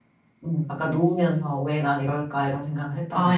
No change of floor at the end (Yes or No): No